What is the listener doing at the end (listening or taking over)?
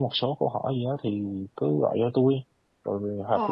listening